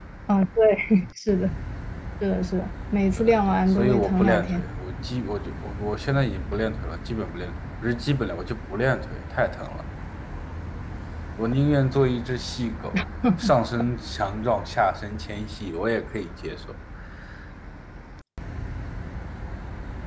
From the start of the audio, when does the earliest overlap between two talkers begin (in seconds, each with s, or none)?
3.2 s